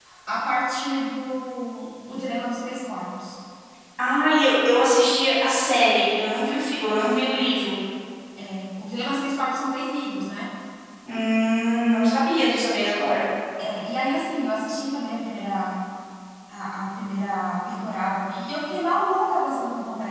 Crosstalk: none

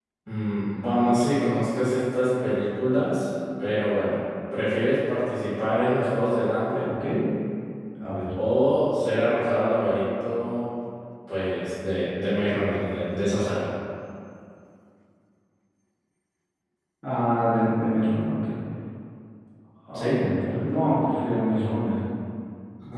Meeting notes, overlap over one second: none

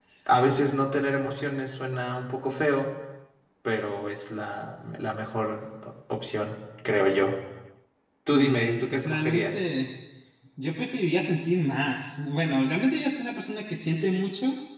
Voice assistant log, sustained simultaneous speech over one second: present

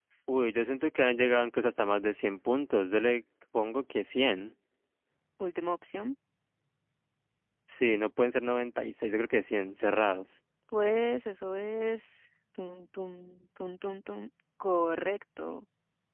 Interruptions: none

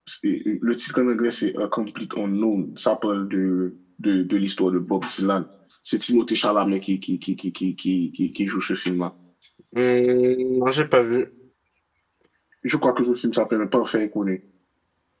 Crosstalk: none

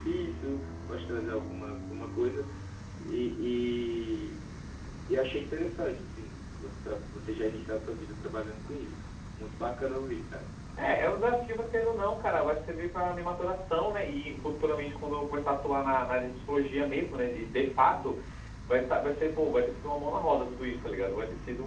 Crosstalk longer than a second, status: none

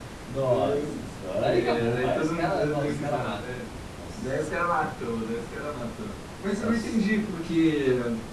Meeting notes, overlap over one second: present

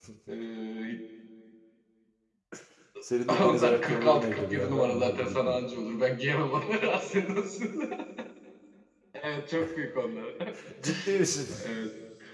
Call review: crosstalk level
present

